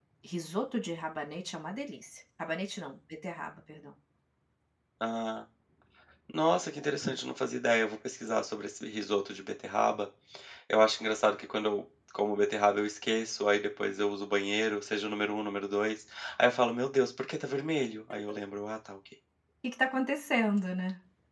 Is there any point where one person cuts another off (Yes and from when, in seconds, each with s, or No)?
No